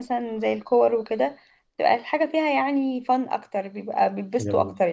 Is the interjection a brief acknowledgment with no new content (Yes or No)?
No